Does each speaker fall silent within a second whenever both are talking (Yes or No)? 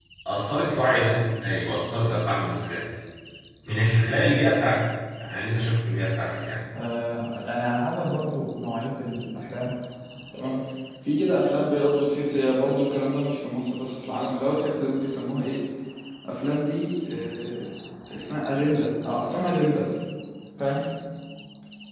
Yes